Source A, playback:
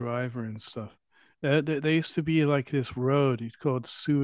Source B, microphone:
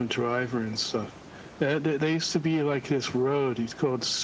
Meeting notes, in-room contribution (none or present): none